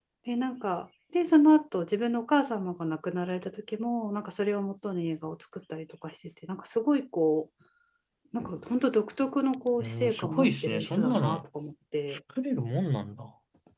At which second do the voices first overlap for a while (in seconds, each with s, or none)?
9.8 s